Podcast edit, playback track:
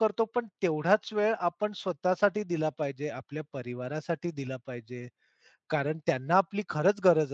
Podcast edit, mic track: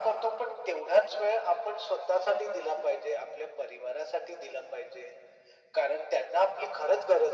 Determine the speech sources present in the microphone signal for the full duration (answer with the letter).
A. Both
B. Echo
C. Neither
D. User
B